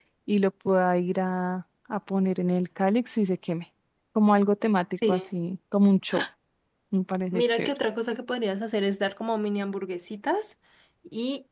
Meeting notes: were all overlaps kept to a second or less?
Yes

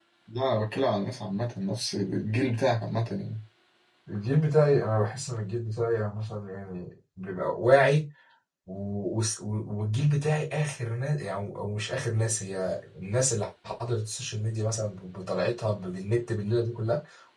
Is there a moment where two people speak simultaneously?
No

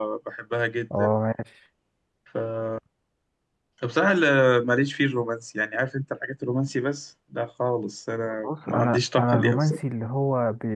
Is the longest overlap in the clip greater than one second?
Yes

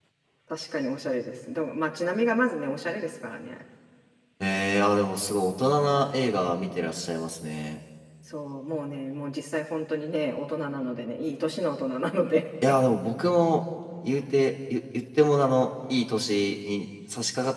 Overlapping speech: No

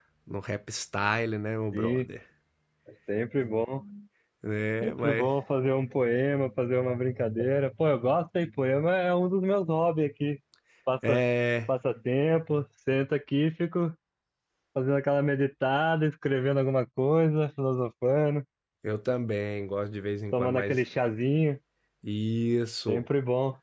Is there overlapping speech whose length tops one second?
No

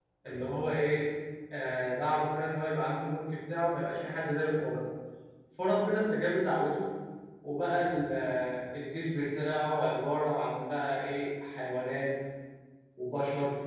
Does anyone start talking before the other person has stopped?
No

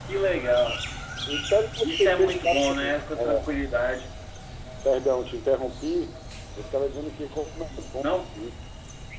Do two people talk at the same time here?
Yes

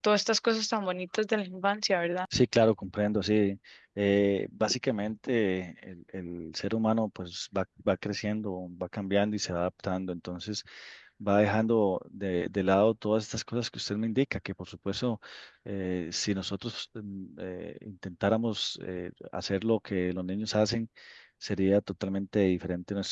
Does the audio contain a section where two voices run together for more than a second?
No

